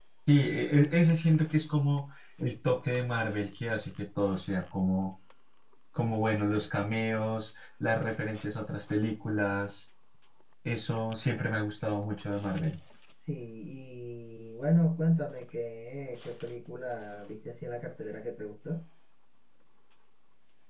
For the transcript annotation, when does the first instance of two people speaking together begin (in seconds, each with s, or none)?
none